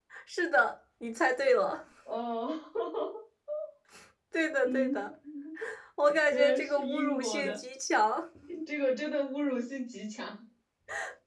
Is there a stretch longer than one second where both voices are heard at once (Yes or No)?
Yes